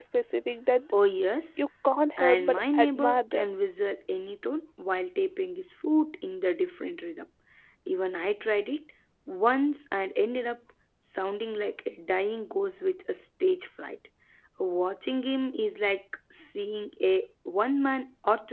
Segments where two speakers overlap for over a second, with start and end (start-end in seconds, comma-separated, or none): 2.2-3.5